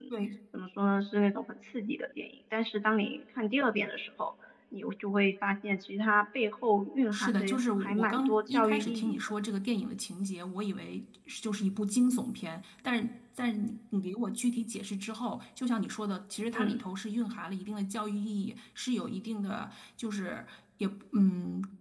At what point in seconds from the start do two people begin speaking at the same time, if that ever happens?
7 s

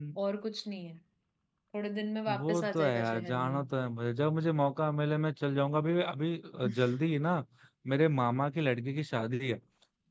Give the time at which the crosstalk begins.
2 s

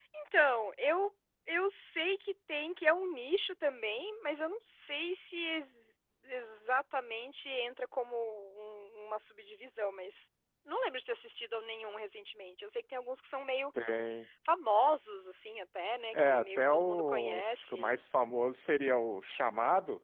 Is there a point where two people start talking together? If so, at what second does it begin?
16 s

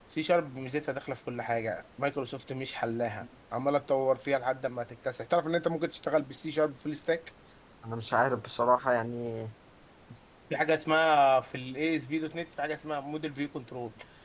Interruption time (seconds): none

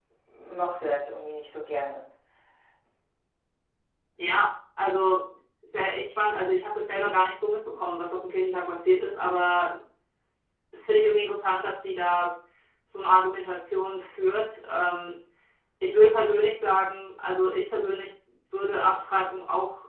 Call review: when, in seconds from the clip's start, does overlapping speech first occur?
none

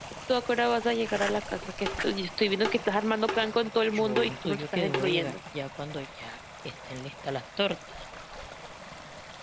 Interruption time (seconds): 4 s

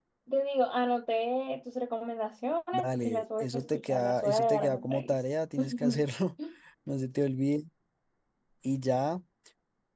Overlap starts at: 3 s

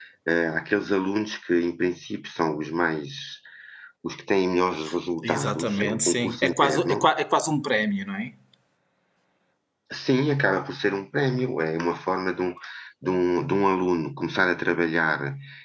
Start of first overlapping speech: 5 s

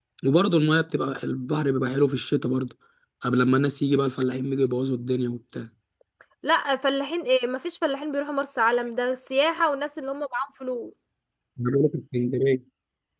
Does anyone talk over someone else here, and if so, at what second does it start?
none

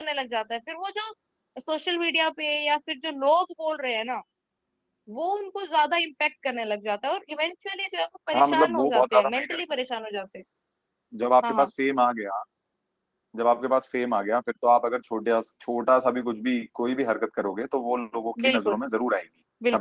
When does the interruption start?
8 s

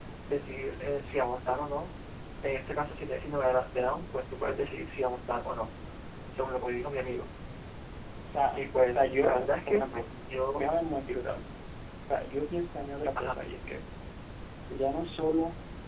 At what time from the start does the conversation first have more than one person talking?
9 s

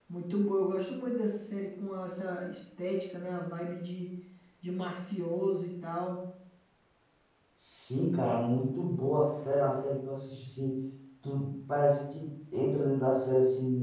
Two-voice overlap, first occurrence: none

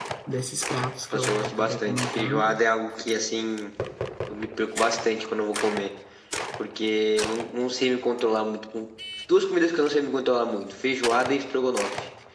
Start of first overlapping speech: 1 s

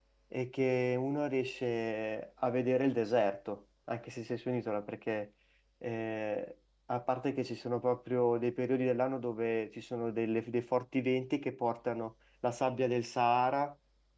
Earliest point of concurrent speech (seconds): none

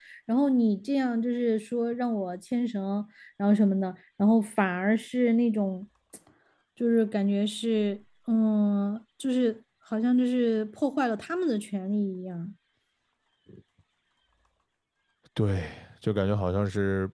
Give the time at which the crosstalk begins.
none

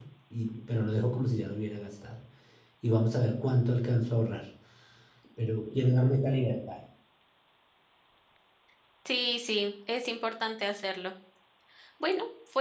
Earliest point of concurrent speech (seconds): none

